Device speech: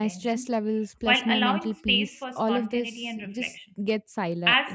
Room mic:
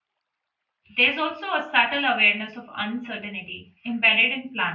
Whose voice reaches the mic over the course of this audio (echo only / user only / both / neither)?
user only